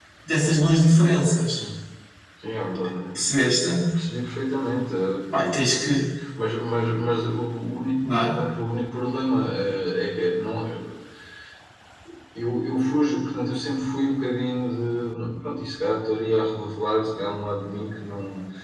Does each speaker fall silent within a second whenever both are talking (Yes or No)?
Yes